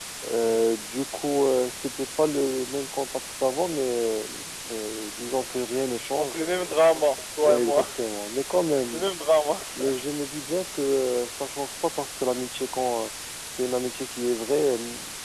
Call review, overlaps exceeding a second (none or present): none